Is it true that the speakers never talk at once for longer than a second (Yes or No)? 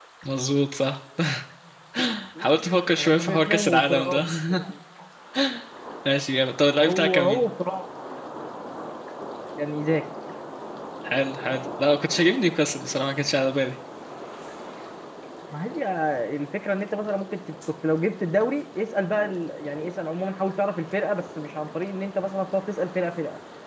No